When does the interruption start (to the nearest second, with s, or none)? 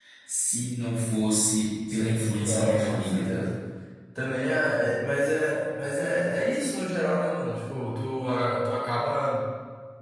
2 s